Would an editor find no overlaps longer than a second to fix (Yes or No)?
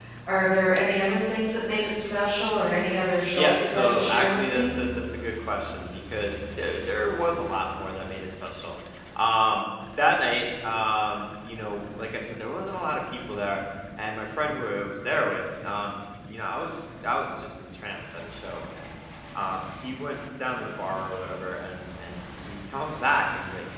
No